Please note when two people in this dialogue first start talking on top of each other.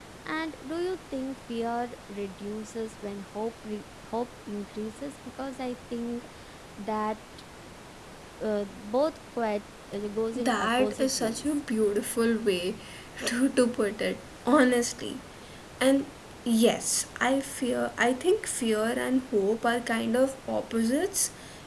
10 s

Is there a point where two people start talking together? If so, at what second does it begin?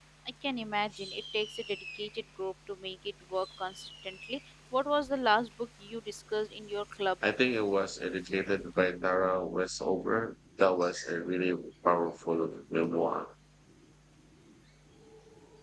none

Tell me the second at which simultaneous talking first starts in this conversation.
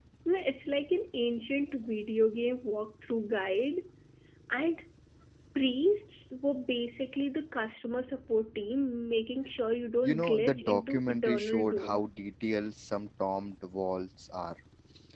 10 s

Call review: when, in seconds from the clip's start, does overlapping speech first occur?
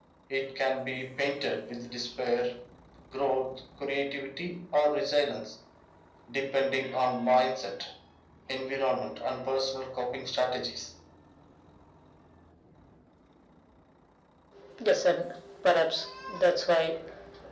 none

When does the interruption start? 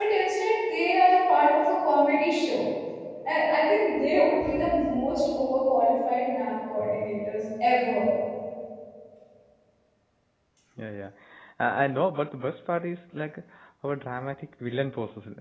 none

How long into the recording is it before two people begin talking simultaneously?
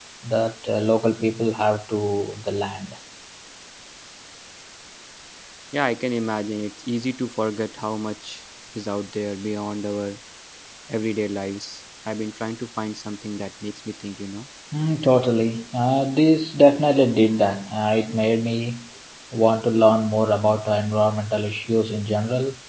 none

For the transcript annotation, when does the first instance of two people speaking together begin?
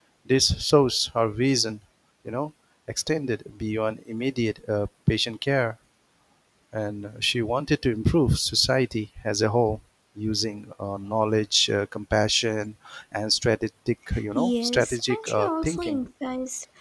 14 s

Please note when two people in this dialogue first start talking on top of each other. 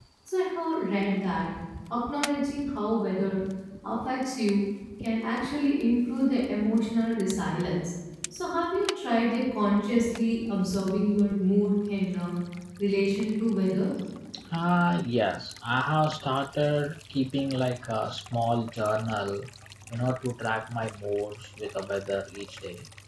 none

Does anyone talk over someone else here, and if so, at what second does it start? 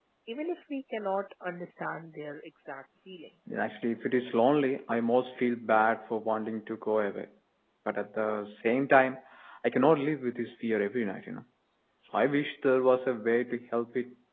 none

